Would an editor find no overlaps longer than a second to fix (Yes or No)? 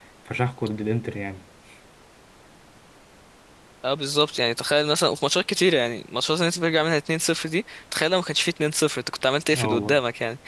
Yes